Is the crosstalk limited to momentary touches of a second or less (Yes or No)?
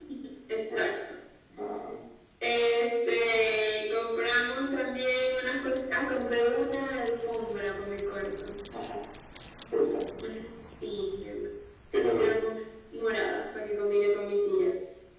Yes